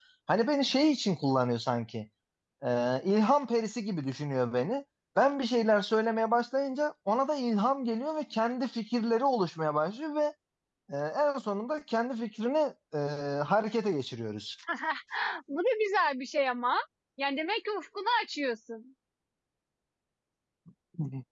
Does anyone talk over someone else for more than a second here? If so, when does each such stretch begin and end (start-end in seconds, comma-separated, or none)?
none